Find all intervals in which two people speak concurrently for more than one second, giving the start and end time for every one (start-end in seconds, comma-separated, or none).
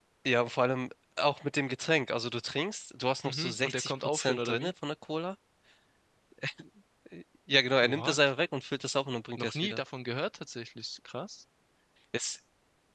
3.2-4.7